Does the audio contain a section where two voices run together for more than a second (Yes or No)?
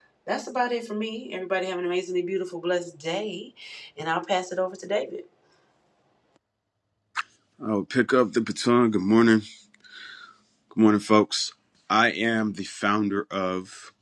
No